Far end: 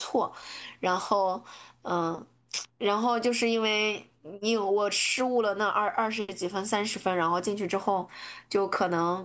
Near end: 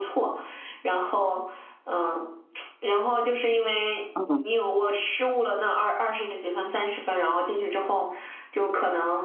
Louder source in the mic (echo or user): user